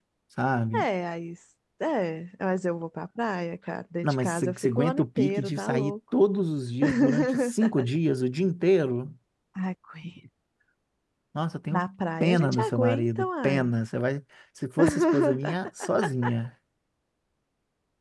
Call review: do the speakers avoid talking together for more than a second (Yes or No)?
No